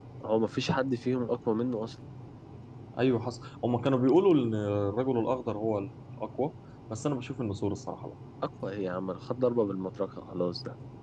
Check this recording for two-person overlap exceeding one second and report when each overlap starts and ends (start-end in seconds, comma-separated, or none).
none